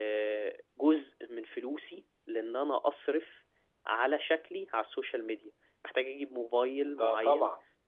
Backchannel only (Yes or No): Yes